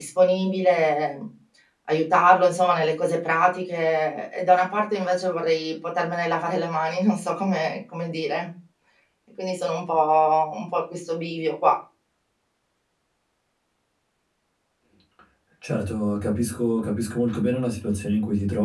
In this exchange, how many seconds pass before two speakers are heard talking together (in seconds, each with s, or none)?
none